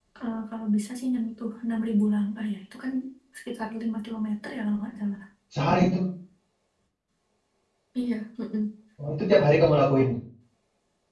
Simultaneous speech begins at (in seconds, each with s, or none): none